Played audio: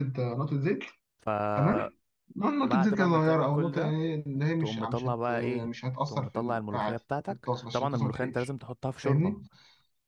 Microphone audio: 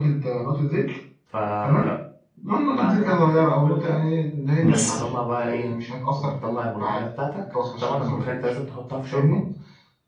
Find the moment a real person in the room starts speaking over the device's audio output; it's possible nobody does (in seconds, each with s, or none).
4.6 s